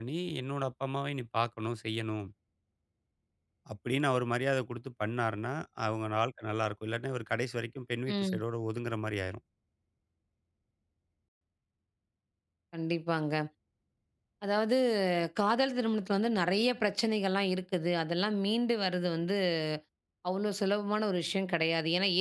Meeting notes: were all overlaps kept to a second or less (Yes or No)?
Yes